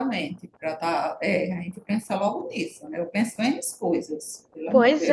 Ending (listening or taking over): taking over